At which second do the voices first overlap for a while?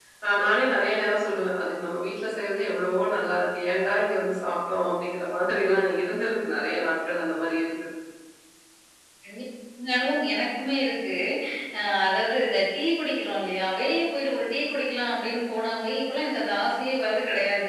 none

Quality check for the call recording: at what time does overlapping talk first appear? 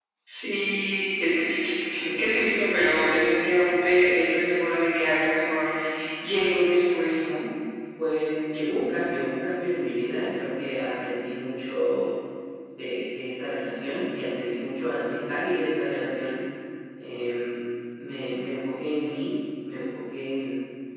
none

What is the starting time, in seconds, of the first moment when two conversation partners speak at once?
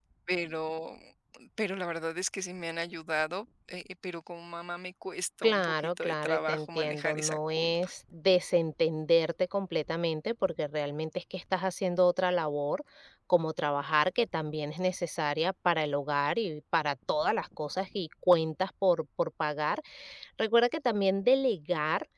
5 s

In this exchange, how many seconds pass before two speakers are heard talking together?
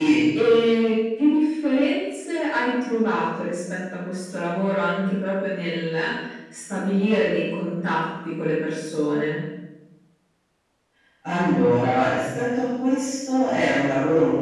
none

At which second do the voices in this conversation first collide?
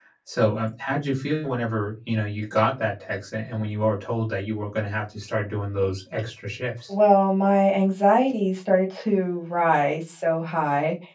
none

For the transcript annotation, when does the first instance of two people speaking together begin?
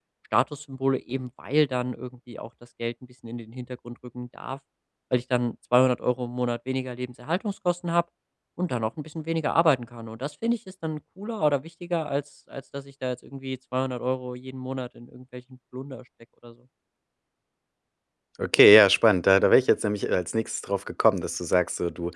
none

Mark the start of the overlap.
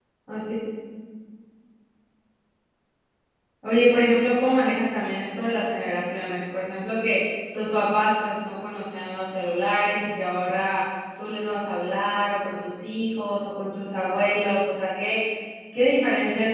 none

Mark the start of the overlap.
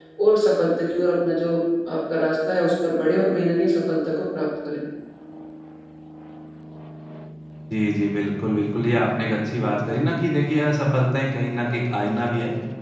none

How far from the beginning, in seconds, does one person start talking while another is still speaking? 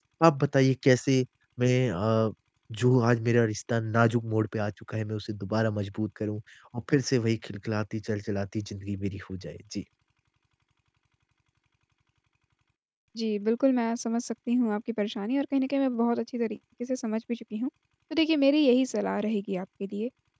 none

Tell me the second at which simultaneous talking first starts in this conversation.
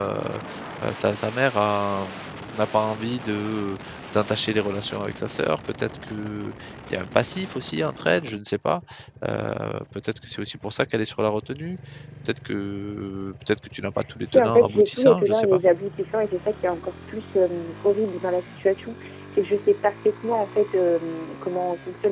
14 s

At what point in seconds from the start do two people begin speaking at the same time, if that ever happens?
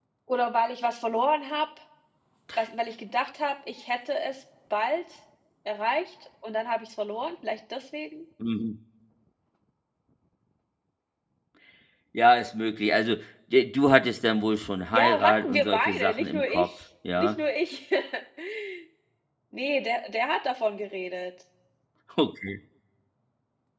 15 s

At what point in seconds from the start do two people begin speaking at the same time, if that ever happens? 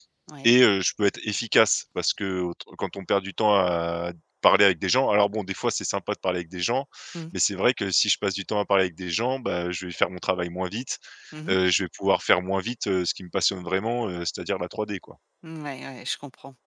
none

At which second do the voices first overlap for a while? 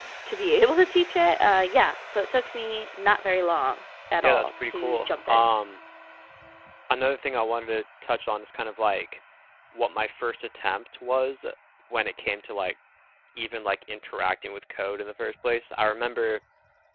4 s

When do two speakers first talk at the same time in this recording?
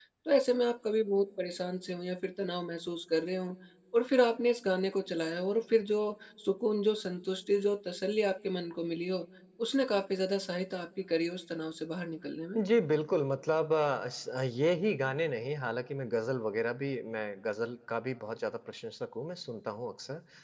none

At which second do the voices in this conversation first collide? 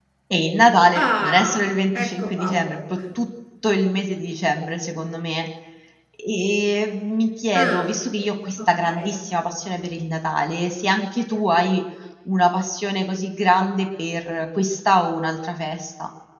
1 s

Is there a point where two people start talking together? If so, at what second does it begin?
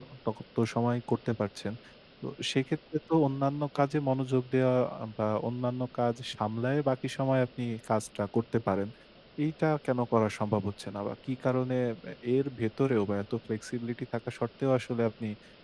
none

